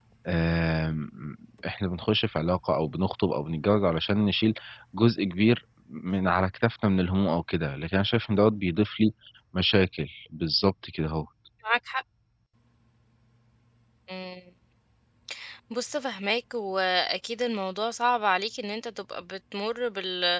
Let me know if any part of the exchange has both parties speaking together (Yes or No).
No